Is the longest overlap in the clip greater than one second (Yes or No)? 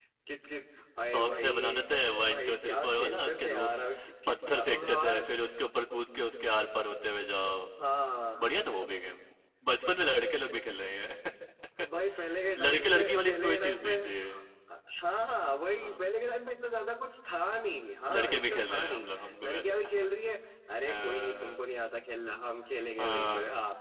Yes